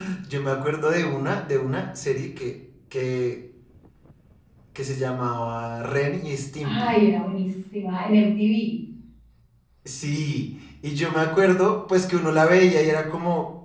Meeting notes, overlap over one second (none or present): none